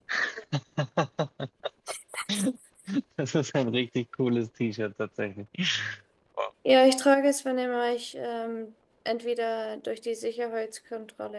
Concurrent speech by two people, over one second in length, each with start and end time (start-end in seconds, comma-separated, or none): none